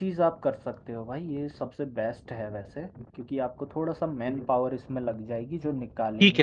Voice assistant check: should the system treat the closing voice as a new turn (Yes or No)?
Yes